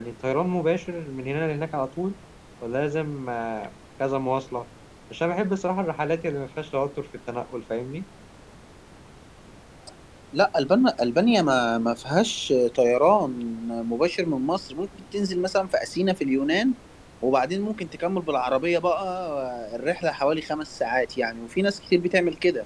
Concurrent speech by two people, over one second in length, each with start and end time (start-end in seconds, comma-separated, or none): none